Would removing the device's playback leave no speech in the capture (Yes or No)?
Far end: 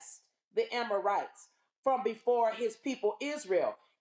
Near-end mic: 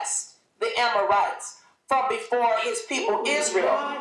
No